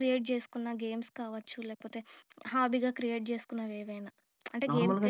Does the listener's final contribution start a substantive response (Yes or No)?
Yes